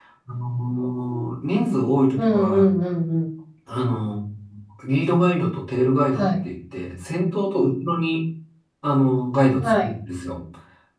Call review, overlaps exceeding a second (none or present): none